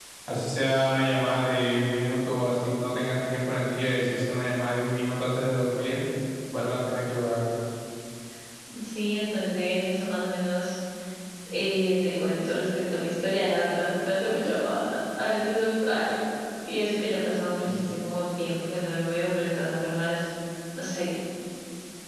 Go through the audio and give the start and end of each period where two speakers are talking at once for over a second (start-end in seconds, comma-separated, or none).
none